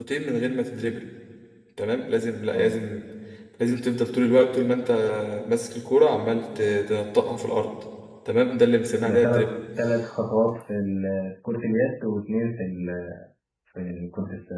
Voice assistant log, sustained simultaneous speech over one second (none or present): none